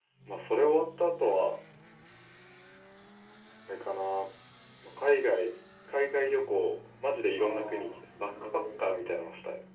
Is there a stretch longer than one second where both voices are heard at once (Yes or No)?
Yes